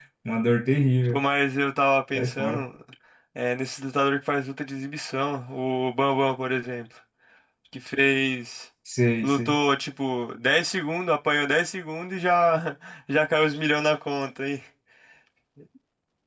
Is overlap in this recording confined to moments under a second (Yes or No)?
Yes